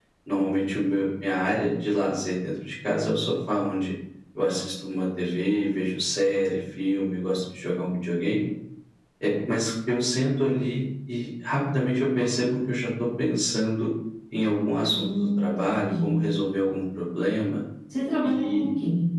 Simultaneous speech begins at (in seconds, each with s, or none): 14.8 s